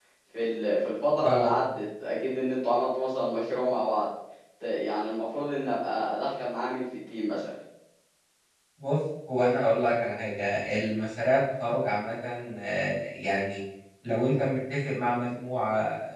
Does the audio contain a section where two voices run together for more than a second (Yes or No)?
No